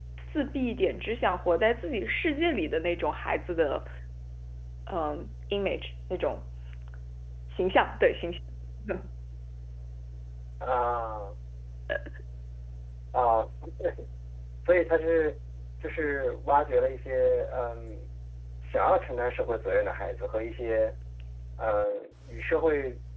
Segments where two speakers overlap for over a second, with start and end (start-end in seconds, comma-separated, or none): none